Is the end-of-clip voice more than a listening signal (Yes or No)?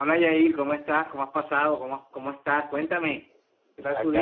Yes